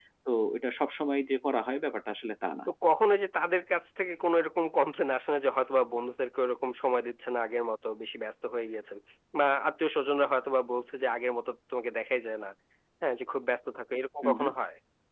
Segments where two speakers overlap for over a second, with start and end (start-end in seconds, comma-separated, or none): none